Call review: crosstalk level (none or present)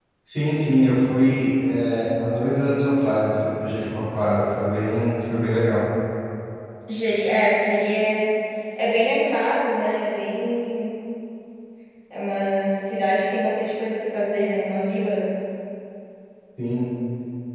none